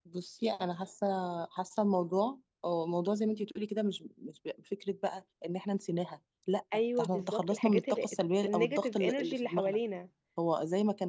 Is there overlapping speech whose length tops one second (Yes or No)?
Yes